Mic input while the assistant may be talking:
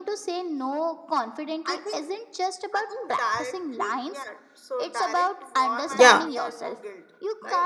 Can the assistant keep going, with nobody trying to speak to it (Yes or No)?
No